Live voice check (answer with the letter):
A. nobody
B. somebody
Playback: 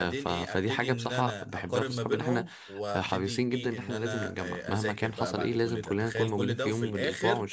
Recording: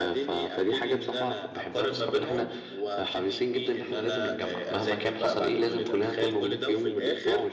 A